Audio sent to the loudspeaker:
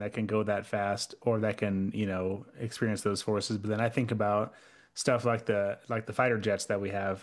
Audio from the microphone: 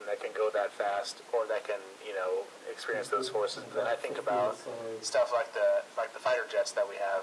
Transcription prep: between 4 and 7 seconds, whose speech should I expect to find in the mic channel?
both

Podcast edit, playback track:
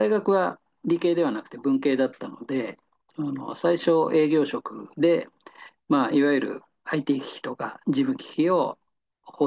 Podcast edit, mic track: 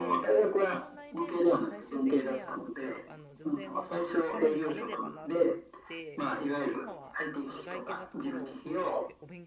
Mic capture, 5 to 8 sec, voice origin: both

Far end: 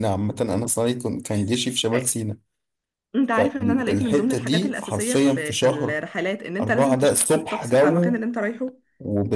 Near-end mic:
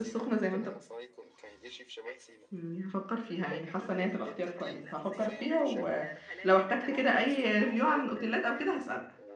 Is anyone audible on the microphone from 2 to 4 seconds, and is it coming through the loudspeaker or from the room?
both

